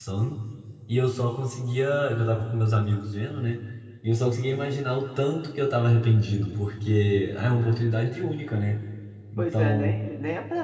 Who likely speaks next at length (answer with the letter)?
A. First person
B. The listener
B